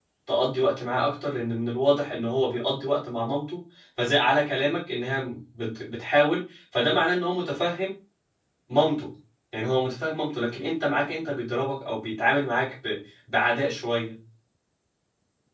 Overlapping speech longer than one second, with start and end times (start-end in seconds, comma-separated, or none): none